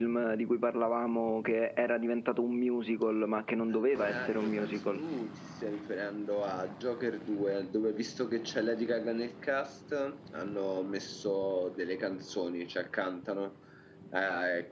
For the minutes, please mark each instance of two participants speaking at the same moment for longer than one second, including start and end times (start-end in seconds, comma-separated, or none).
3.7-5.1